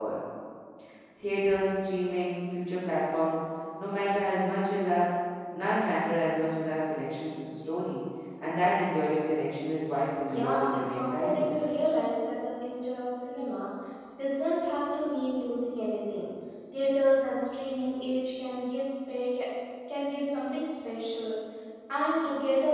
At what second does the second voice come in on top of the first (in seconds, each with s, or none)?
10.3 s